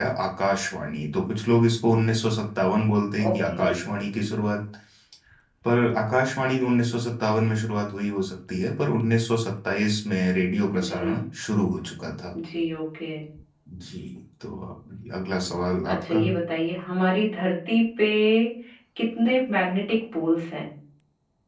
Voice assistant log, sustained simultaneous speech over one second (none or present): none